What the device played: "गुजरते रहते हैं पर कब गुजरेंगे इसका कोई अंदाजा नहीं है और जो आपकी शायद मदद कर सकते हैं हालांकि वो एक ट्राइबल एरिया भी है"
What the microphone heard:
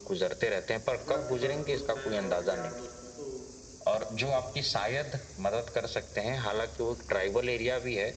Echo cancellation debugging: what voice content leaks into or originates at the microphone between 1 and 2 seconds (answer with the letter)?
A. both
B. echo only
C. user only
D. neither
A